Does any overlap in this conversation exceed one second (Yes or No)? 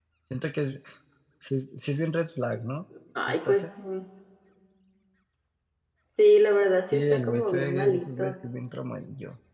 Yes